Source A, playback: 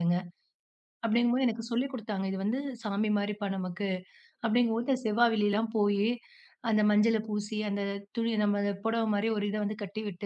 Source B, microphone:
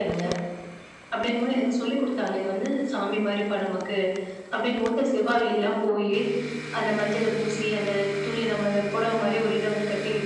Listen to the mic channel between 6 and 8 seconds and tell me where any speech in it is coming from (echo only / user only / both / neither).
echo only